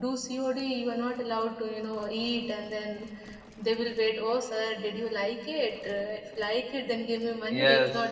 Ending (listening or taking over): taking over